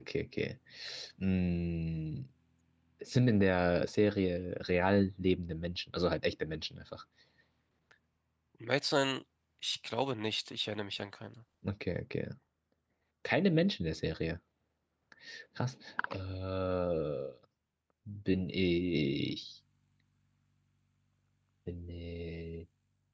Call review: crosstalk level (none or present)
none